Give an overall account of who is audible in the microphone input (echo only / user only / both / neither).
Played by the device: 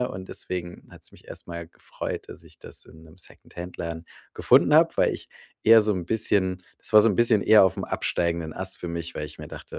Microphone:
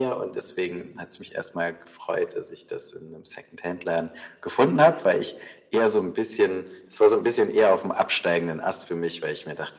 echo only